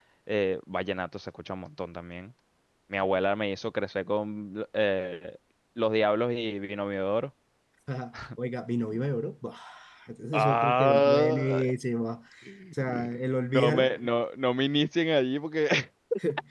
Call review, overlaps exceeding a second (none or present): present